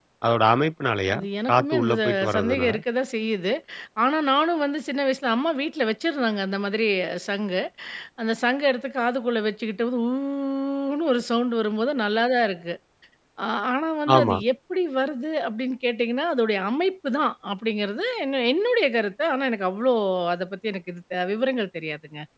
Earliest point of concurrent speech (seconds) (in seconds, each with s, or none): 1.1 s